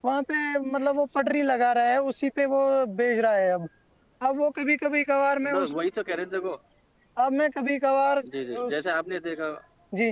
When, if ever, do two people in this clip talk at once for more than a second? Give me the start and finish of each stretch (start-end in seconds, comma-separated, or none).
none